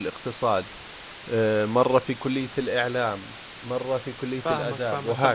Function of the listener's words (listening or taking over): taking over